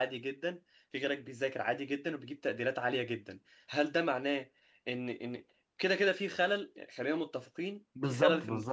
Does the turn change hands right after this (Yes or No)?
Yes